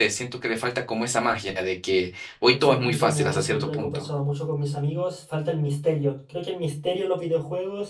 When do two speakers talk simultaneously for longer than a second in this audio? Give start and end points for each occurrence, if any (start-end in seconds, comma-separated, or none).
2.5-4.1